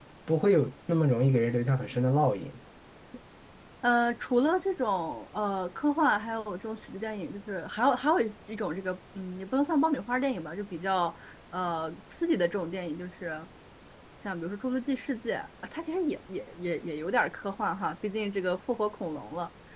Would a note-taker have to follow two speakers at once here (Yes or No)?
No